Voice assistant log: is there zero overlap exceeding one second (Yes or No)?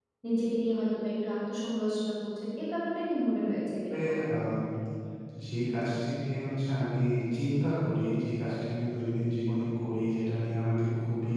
Yes